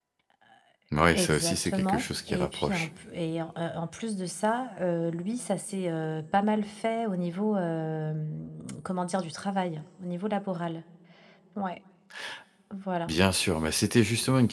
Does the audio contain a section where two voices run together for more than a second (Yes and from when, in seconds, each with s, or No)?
Yes, from 1.1 s